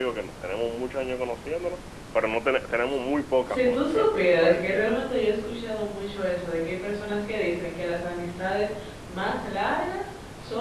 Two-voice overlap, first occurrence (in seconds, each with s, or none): 3.4 s